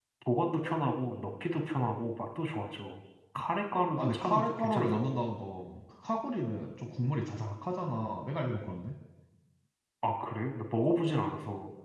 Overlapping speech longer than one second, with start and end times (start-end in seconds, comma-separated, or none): 4.0-5.2